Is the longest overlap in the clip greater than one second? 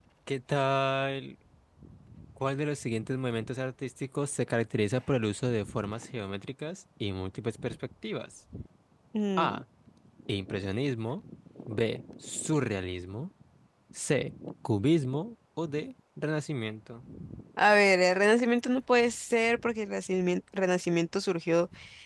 No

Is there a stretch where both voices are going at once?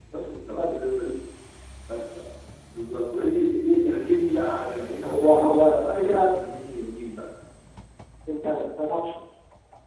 Yes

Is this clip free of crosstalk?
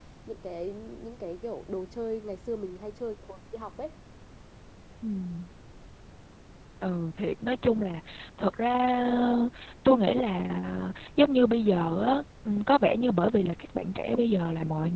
Yes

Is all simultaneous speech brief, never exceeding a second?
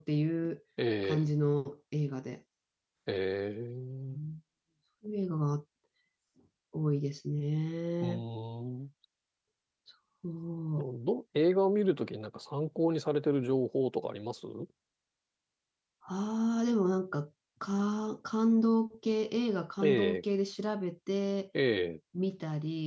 Yes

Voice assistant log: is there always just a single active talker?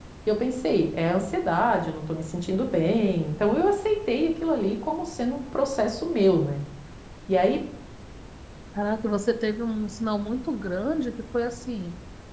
Yes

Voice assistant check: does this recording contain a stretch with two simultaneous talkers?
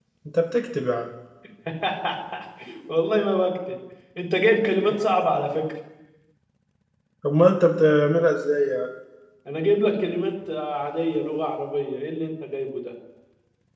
No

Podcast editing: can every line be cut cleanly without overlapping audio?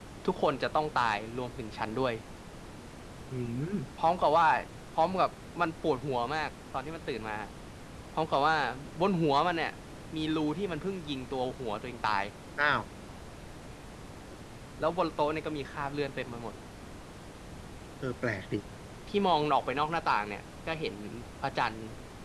Yes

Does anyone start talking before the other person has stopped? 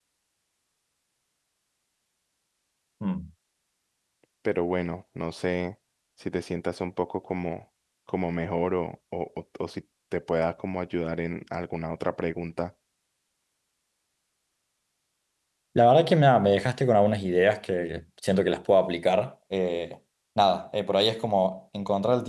No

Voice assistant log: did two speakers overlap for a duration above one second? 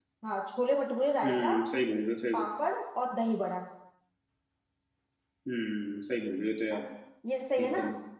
No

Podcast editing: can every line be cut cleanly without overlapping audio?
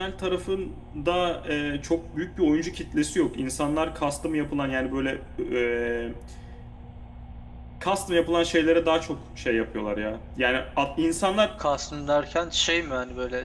Yes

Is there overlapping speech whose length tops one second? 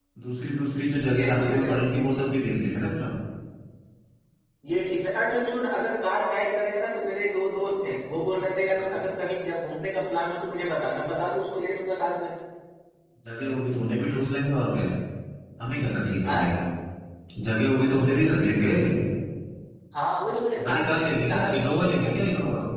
Yes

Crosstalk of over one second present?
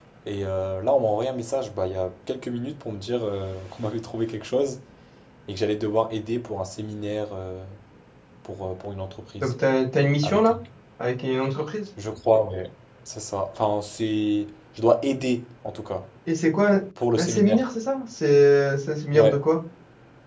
No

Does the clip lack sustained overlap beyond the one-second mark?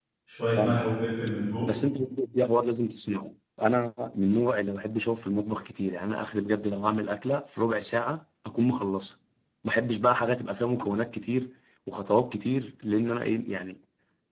Yes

